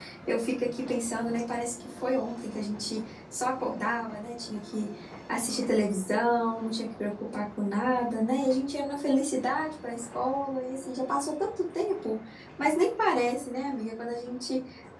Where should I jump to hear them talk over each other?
none

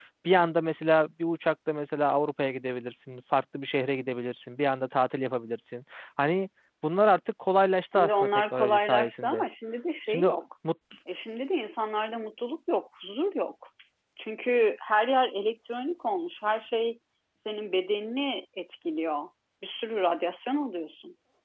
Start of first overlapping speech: 7.9 s

